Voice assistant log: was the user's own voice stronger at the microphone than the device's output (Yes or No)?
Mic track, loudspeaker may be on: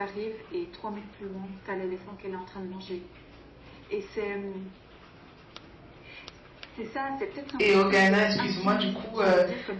Yes